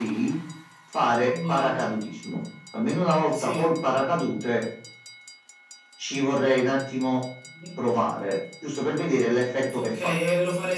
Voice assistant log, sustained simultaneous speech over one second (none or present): none